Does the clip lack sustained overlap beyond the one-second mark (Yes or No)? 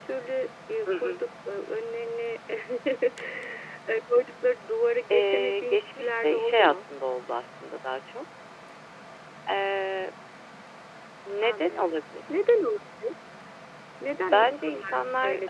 No